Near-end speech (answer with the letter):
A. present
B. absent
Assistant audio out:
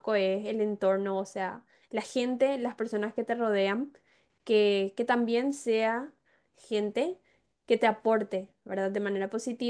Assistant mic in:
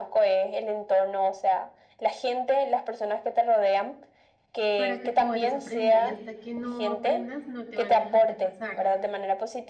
A